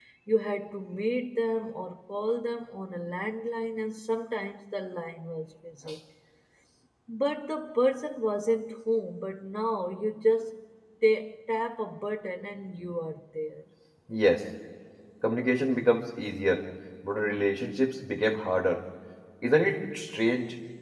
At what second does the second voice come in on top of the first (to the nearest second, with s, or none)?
none